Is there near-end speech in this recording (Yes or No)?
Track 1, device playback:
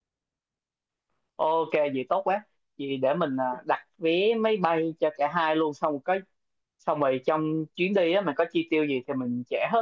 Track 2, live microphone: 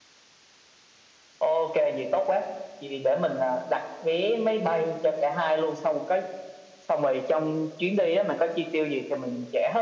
No